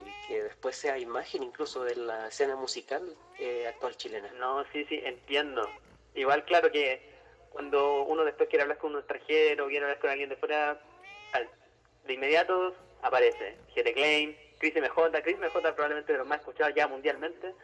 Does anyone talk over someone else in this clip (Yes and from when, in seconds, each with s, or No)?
No